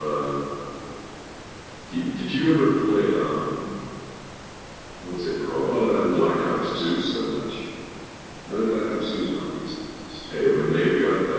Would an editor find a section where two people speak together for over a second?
Yes, from 5.7 s

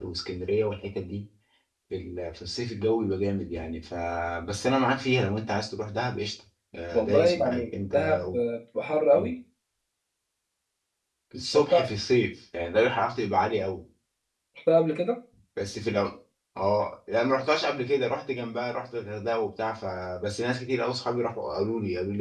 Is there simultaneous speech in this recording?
Yes, from 6.9 s

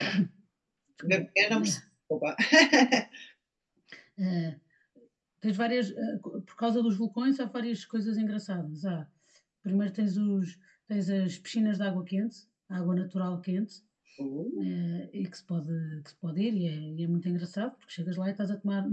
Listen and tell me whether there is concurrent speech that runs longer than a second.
No

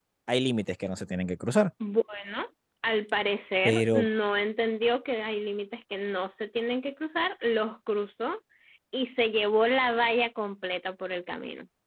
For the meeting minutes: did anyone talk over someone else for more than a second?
No

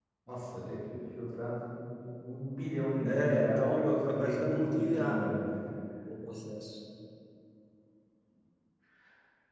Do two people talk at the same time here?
Yes, from 3.0 s

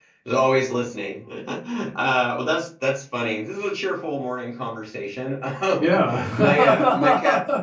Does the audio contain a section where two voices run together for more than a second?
Yes, from 5.8 s

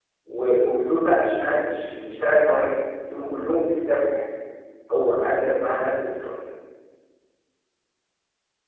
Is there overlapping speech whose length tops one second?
No

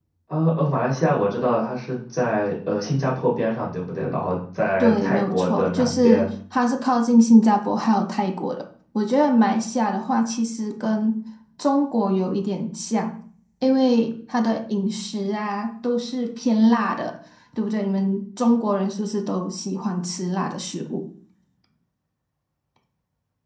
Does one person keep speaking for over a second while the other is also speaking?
Yes, from 4.8 s

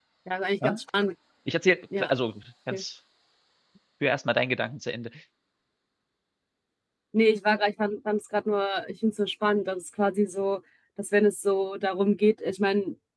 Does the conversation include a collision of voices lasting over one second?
No

